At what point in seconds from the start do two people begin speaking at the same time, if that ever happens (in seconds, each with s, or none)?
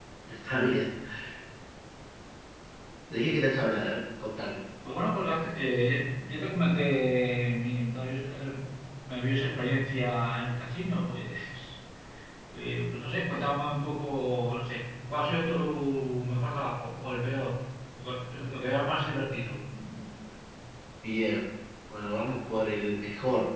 none